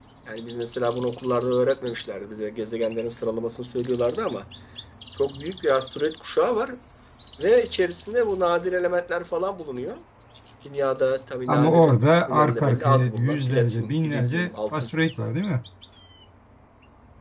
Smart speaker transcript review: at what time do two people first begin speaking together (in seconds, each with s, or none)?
11.5 s